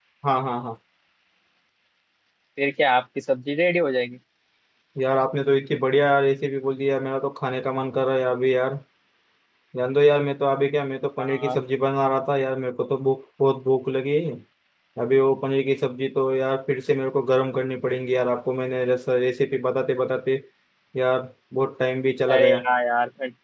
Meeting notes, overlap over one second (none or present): none